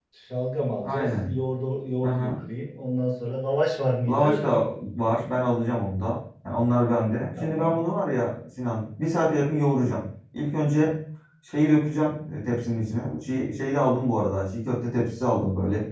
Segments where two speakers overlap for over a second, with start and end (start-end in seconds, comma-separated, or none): none